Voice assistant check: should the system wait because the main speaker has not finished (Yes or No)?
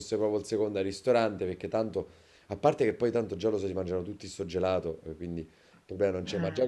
Yes